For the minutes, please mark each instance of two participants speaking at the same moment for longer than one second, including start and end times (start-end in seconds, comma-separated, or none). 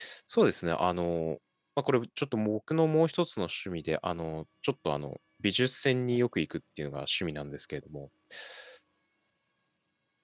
none